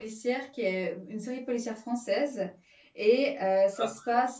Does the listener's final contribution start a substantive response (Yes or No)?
No